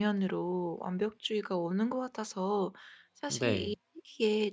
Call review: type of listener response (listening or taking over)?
listening